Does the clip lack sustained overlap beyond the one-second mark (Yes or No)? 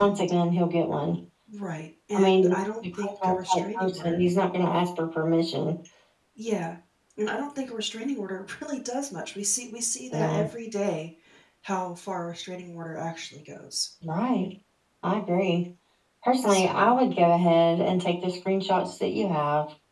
No